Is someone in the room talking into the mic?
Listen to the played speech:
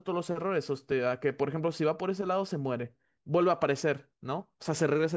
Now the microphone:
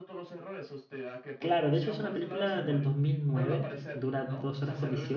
Yes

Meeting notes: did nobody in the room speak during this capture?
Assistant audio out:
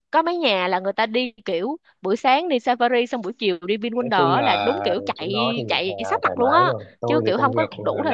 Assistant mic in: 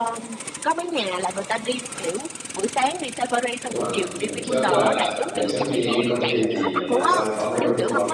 No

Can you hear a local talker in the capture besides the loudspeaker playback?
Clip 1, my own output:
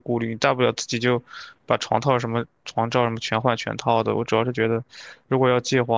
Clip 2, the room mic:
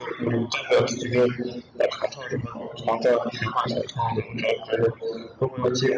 No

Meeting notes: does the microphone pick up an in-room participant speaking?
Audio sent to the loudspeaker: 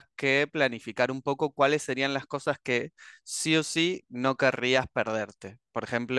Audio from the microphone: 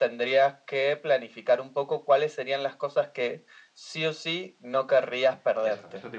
Yes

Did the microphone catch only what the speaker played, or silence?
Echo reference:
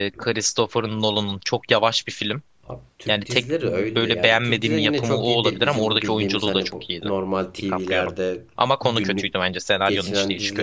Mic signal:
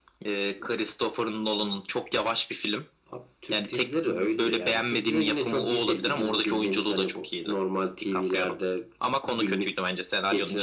Yes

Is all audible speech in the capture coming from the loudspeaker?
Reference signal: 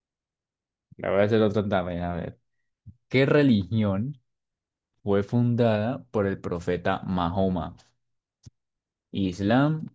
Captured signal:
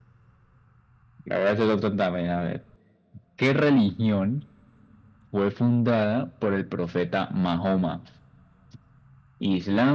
Yes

